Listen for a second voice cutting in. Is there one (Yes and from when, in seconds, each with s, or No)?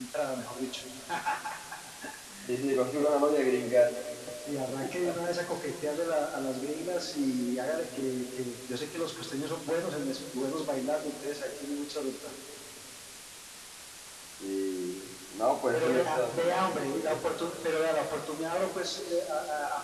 Yes, from 15.7 s